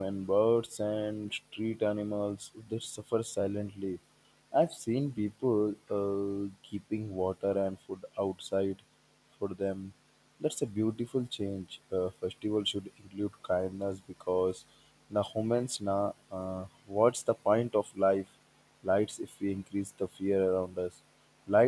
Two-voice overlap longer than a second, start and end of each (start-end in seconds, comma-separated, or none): none